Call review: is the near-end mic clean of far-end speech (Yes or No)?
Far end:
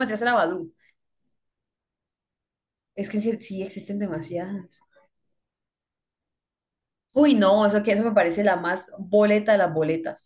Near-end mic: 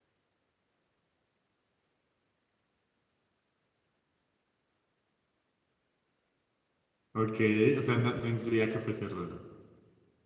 Yes